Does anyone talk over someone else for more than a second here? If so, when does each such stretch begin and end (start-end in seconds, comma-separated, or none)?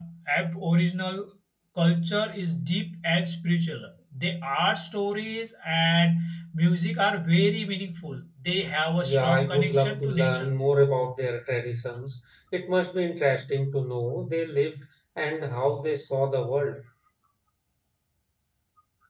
9.0-10.5